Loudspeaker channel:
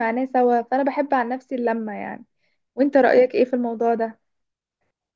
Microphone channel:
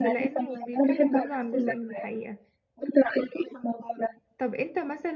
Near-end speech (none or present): present